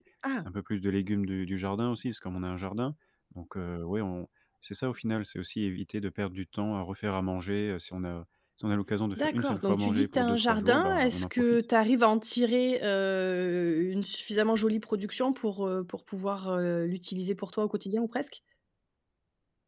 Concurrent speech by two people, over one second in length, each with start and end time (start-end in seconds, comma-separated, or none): 9.2-11.6